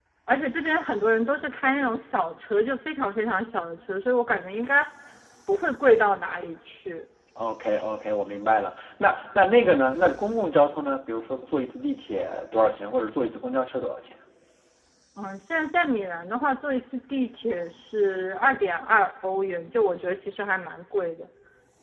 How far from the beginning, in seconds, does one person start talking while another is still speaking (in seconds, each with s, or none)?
none